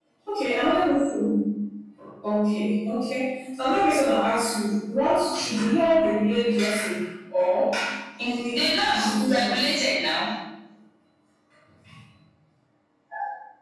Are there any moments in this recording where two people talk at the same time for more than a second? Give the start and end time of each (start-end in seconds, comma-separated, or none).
8.2-9.7